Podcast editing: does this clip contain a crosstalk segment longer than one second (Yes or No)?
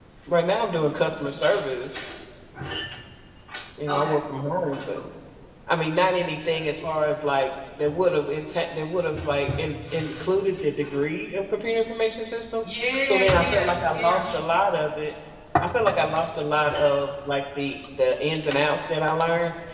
Yes